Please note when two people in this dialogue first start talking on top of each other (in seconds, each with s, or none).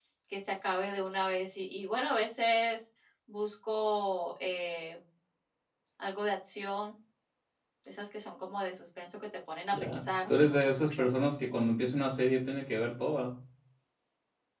9.7 s